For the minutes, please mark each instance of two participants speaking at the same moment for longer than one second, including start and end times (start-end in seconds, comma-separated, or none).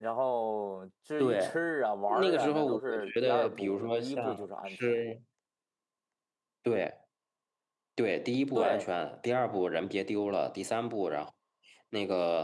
2.1-4.8